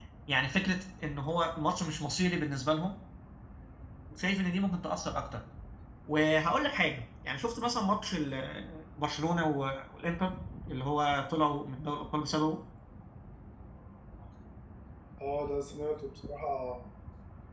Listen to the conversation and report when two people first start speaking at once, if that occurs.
none

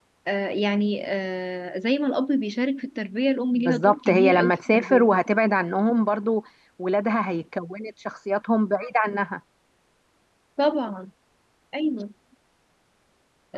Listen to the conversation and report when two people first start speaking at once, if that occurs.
3.5 s

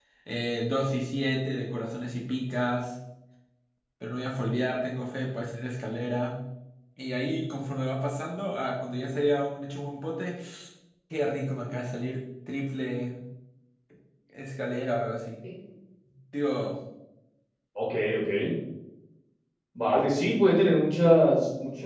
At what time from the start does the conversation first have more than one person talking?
none

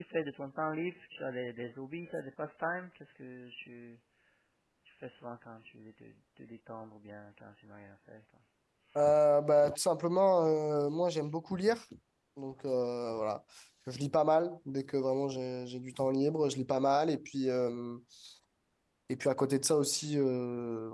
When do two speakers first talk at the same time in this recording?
none

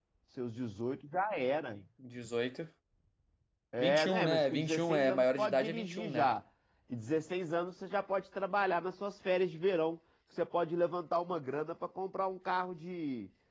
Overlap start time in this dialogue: 3.8 s

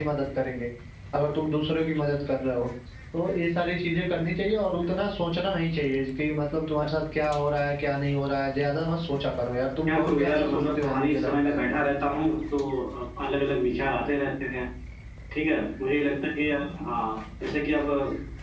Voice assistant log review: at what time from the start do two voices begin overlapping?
9.9 s

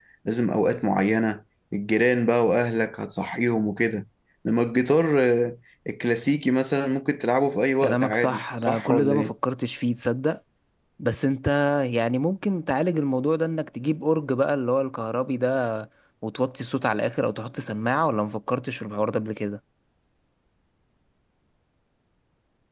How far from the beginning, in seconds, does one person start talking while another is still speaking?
7.8 s

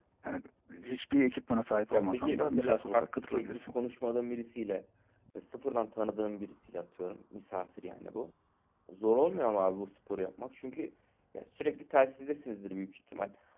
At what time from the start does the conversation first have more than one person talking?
1.9 s

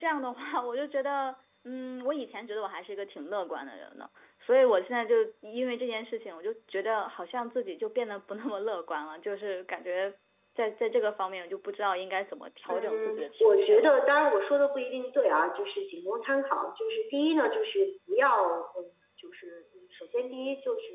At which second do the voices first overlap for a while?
12.7 s

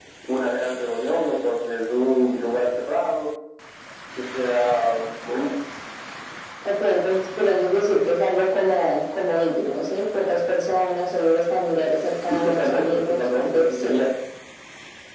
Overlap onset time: 12.3 s

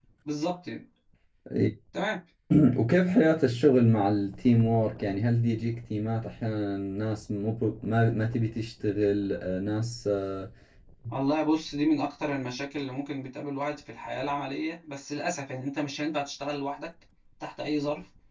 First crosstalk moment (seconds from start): none

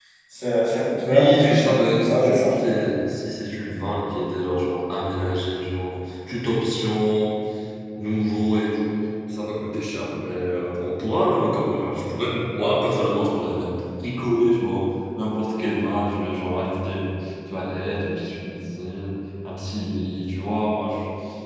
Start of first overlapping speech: 1.0 s

